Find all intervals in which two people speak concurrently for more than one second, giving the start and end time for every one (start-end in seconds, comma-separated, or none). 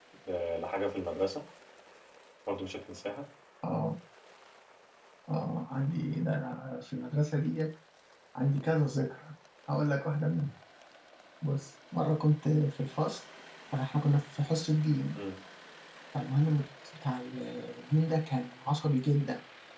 none